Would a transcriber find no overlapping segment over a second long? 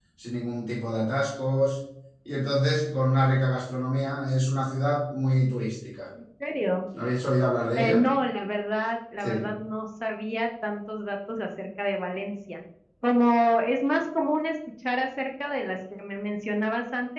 Yes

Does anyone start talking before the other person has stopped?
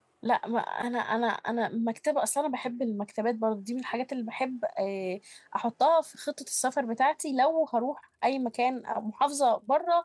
No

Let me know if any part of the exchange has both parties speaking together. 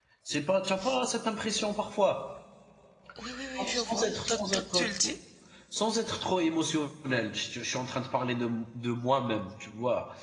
Yes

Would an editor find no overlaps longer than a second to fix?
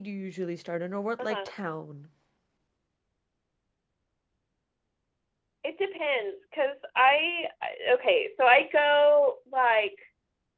Yes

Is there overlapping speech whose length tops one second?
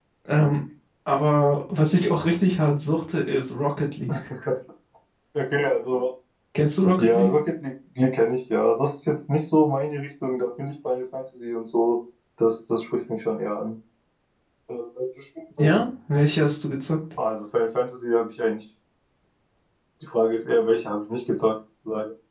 No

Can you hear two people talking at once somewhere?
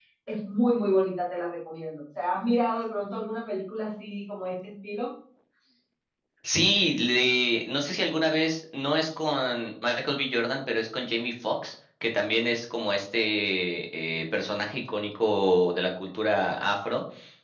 No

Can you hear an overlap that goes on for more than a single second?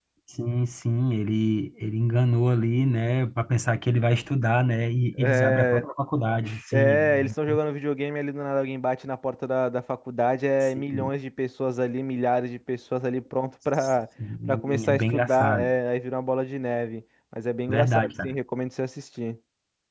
Yes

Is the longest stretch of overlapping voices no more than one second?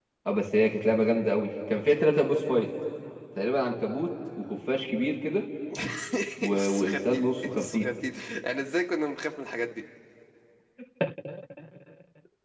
No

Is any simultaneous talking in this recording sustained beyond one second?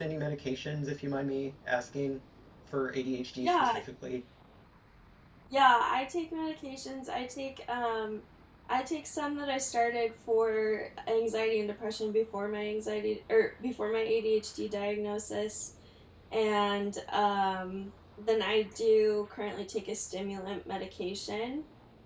No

